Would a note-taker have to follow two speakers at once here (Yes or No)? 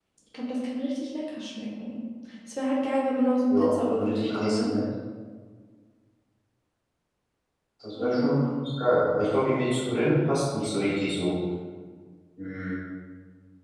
Yes